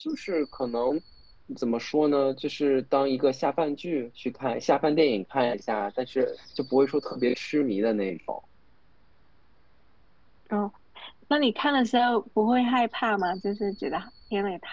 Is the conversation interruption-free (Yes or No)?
Yes